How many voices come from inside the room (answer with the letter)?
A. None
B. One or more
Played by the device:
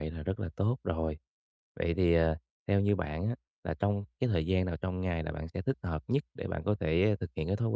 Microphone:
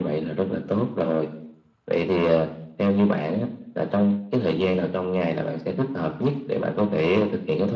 A